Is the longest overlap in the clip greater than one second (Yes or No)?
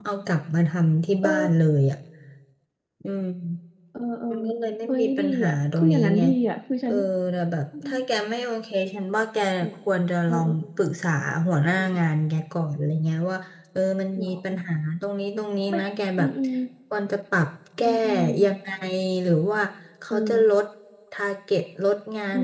Yes